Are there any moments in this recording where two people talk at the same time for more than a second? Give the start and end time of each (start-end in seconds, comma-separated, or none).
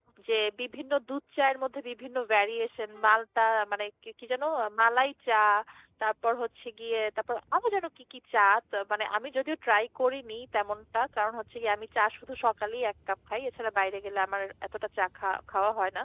none